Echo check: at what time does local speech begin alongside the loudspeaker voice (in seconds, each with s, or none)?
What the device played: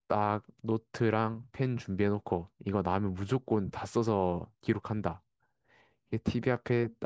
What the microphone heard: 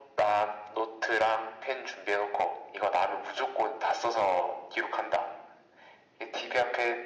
none